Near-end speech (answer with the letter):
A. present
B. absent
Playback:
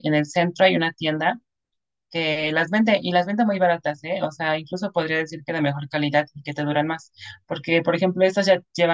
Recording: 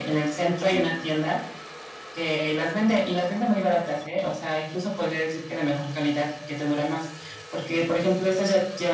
B